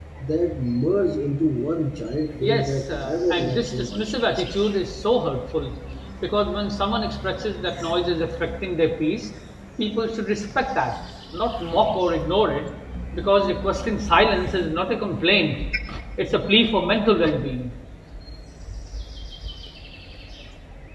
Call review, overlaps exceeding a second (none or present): present